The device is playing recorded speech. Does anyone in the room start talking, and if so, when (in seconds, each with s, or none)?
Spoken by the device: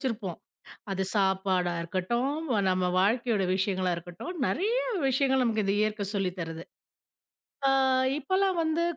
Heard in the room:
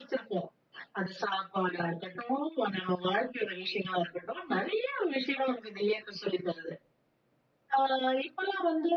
none